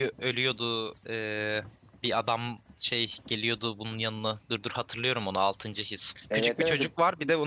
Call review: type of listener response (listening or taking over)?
listening